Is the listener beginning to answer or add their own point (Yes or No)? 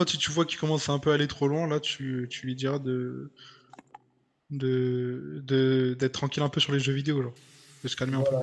Yes